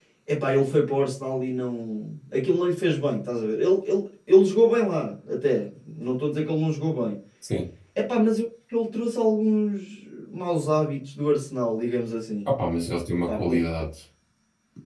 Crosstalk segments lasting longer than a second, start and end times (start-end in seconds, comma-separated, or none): none